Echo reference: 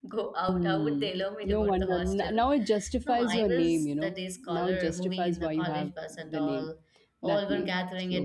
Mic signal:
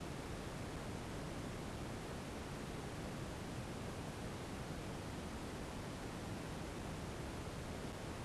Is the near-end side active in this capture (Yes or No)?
No